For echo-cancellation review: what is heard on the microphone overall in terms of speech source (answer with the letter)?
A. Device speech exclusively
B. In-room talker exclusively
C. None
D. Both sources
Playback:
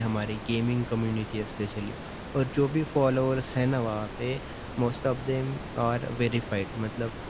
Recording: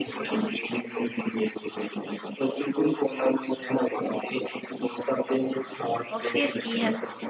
D